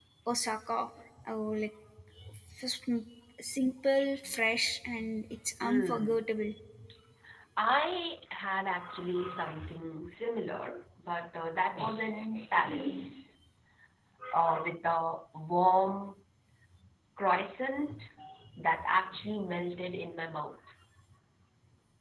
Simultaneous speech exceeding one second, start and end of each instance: none

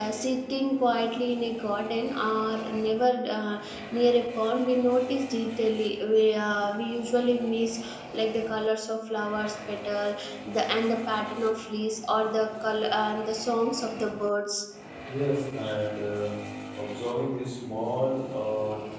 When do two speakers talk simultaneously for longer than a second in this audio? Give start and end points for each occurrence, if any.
none

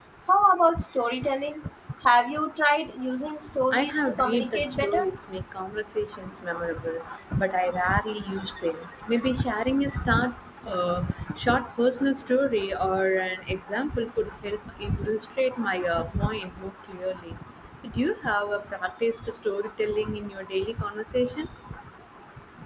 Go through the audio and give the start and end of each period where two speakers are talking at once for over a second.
3.7-5.0

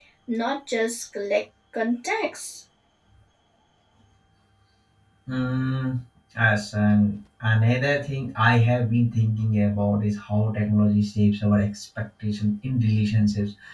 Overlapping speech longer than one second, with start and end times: none

